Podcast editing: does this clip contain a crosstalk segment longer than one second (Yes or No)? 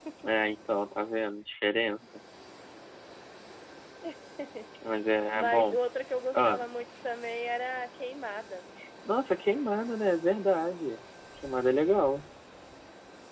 No